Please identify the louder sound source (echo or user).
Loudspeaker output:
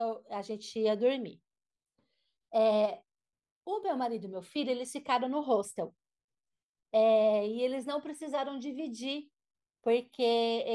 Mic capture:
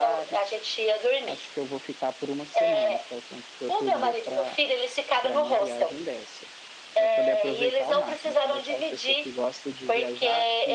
echo